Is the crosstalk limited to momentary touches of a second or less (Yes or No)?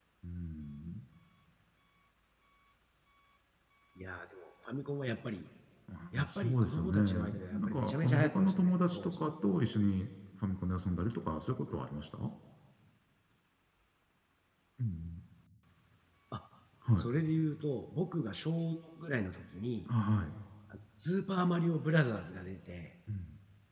No